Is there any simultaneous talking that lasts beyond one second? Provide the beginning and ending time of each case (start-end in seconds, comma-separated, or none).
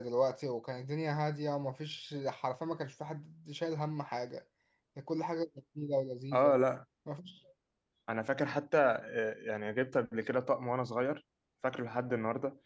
none